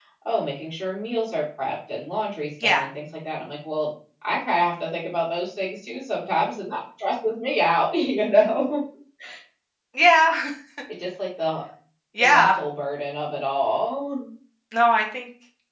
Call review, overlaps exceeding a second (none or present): none